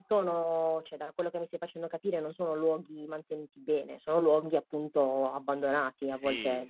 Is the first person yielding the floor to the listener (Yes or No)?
Yes